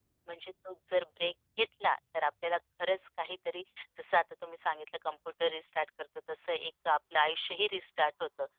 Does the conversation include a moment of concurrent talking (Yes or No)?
No